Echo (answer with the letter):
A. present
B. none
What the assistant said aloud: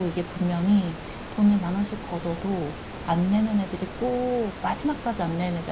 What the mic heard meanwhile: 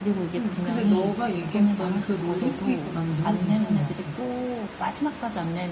A